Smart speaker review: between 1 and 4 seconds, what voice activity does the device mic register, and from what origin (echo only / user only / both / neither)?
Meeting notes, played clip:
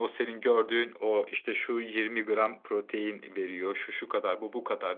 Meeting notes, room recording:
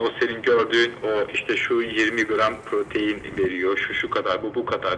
echo only